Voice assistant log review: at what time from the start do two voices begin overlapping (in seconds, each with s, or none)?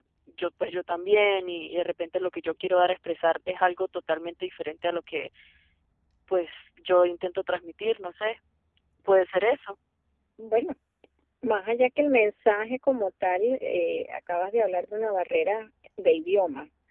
none